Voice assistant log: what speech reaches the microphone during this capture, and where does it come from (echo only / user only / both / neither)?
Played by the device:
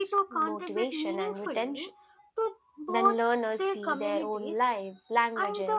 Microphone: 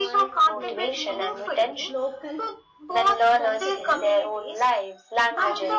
both